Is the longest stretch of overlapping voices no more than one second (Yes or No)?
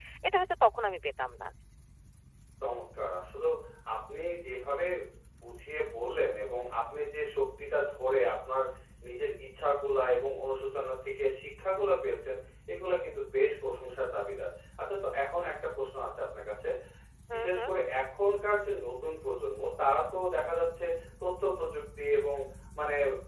Yes